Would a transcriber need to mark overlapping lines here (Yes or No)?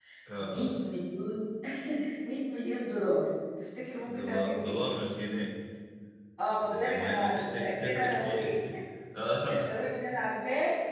Yes